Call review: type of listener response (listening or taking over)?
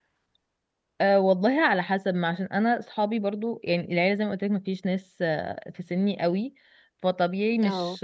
listening